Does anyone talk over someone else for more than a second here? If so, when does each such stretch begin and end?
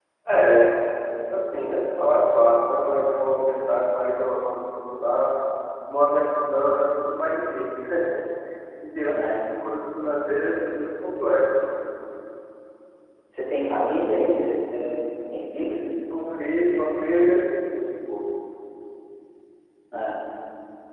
none

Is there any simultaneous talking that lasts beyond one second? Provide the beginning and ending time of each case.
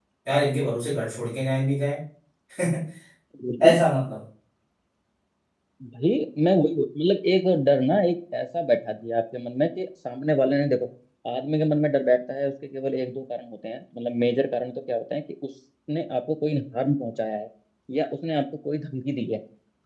none

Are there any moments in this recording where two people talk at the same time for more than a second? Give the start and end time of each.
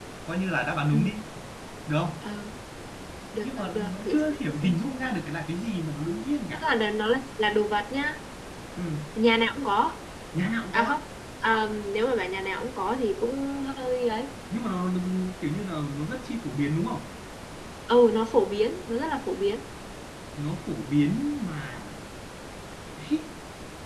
3.4-4.8

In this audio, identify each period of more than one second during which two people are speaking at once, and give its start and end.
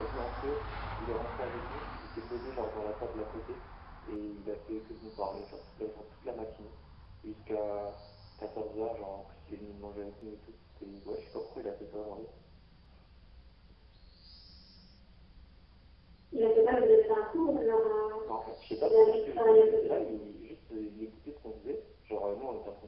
18.8-20.1

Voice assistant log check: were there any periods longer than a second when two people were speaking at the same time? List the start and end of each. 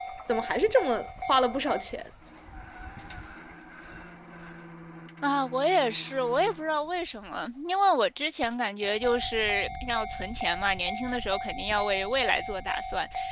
none

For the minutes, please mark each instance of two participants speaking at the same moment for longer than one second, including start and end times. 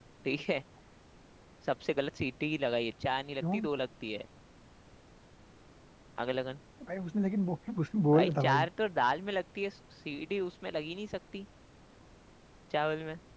none

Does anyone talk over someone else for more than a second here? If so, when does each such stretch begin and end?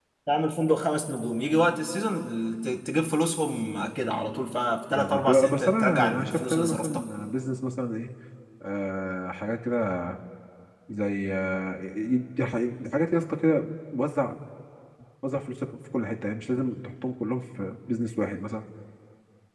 5.0-7.0

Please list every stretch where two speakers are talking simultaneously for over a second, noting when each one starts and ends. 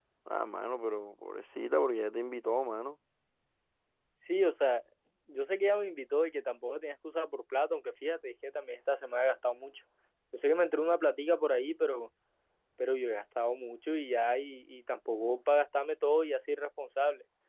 none

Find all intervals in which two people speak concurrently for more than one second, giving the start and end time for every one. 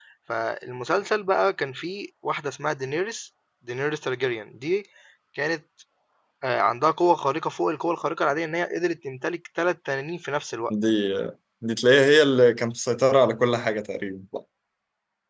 none

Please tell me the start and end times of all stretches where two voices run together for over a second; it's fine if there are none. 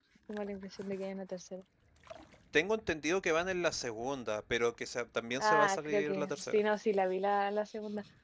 5.4-6.6

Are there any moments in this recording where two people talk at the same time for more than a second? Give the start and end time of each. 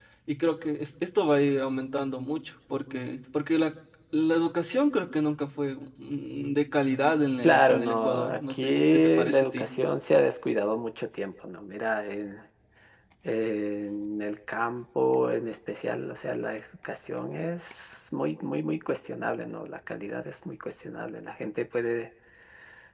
7.4-9.7

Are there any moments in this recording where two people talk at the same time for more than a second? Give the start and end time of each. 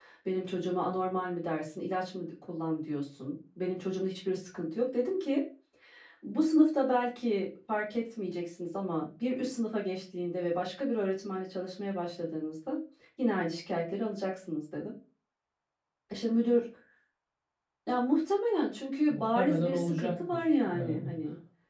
19.1-21.1

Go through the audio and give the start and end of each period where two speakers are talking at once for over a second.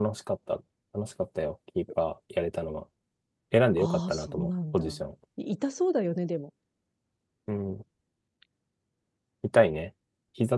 3.8-5.0

